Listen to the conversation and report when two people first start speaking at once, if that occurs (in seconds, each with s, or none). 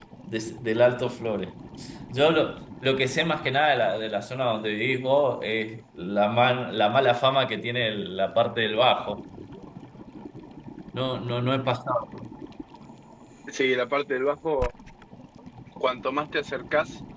none